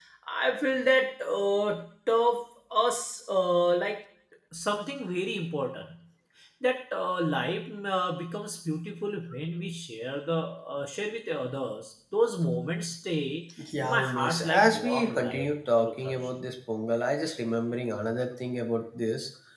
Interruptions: present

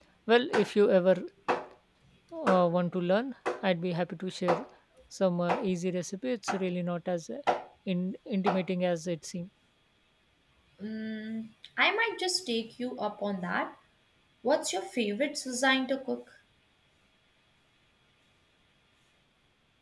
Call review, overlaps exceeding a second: none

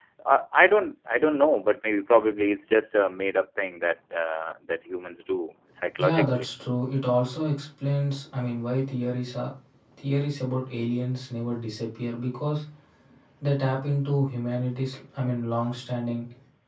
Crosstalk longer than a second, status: none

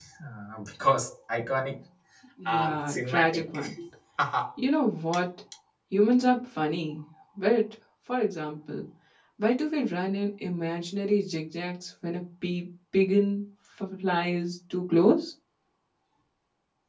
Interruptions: present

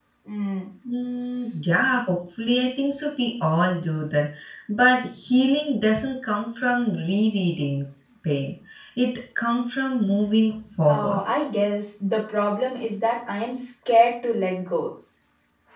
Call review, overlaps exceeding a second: none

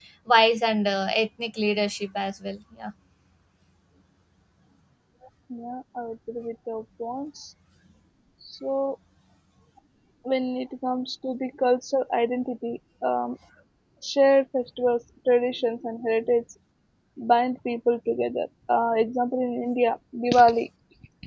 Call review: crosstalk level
none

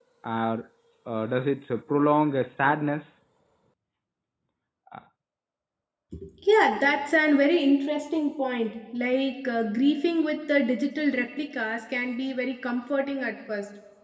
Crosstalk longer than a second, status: none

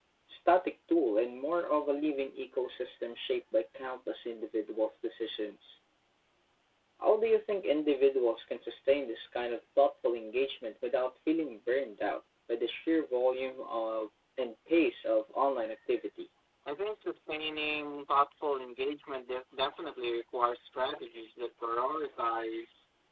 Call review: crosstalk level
none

